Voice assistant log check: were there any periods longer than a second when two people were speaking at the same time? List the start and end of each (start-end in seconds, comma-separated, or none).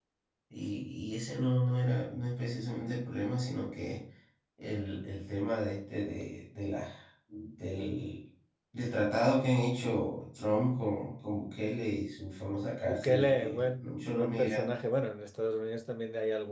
12.8-14.7